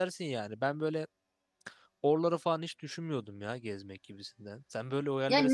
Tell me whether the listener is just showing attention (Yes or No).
No